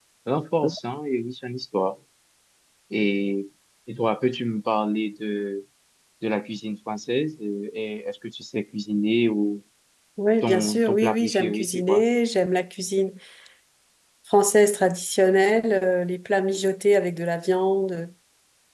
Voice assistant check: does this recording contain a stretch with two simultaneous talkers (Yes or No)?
Yes